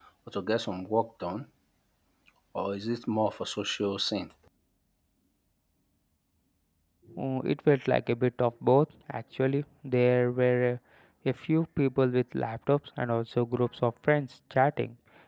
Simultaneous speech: No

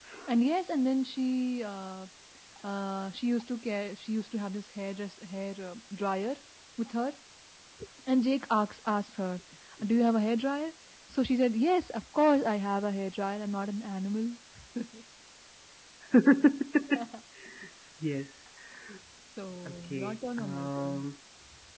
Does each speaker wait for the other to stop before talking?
No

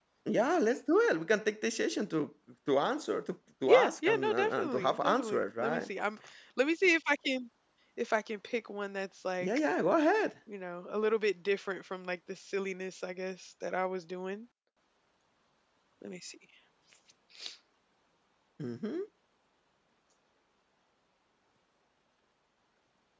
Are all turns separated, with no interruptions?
No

